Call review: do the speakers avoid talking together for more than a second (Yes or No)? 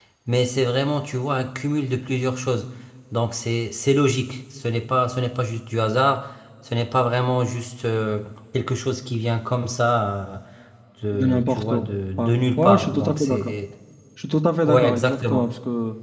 No